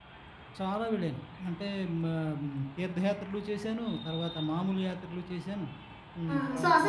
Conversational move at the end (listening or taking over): taking over